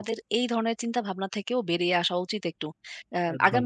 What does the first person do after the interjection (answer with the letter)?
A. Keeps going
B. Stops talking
A